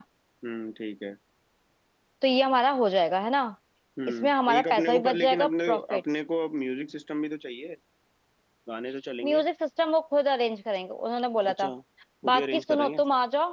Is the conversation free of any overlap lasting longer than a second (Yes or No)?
No